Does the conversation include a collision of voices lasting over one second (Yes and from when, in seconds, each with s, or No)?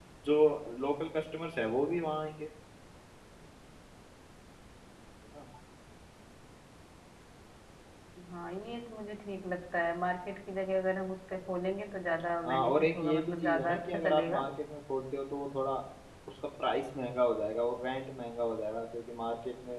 Yes, from 12.4 s